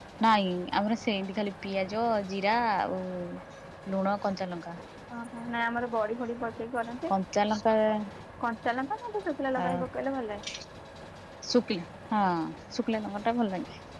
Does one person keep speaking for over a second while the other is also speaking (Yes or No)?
No